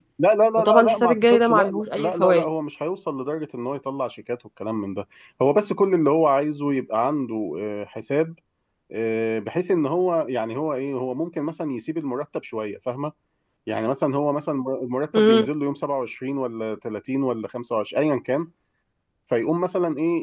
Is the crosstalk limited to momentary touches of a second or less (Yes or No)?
No